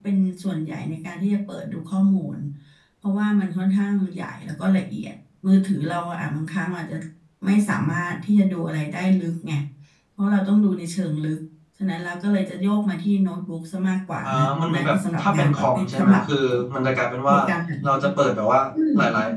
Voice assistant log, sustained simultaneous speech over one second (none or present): present